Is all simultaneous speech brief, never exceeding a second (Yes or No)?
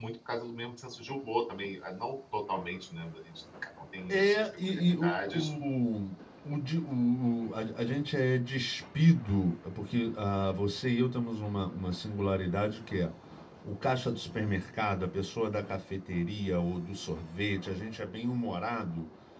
No